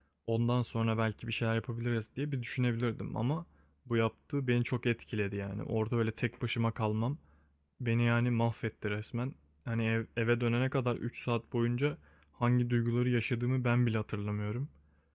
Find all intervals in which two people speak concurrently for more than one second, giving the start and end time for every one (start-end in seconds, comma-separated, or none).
none